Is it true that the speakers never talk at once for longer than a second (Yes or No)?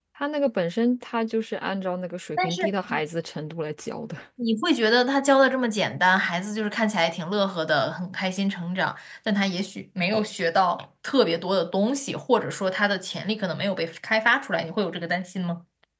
Yes